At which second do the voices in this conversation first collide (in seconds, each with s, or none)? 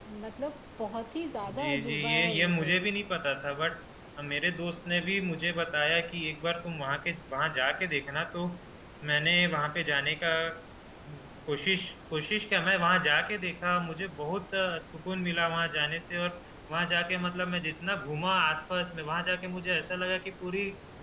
1.4 s